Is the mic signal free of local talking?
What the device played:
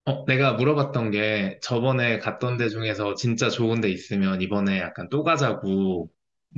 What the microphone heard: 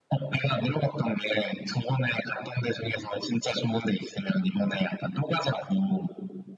Yes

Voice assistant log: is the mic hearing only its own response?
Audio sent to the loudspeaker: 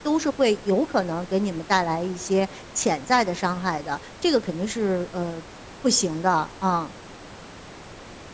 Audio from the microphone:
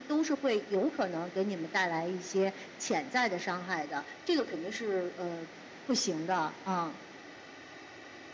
Yes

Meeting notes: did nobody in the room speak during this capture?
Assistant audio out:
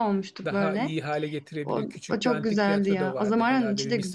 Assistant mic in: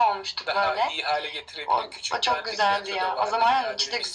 Yes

